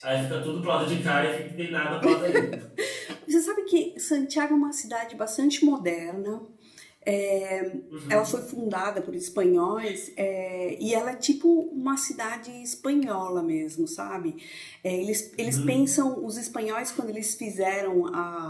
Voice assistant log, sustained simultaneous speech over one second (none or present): none